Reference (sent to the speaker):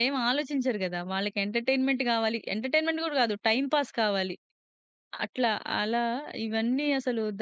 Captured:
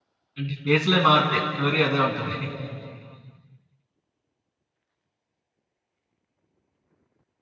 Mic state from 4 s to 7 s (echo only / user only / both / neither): neither